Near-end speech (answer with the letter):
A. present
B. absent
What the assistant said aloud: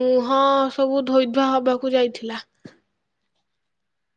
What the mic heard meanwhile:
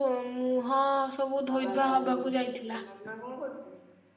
A